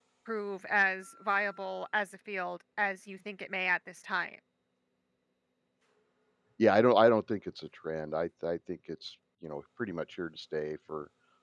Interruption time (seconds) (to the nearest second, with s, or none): none